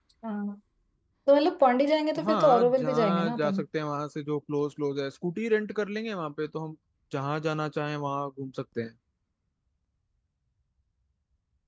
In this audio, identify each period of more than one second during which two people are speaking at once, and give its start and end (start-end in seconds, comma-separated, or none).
2.2-3.6